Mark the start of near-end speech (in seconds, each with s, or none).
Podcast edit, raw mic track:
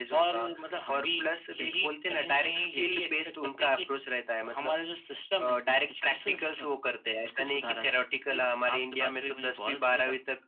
none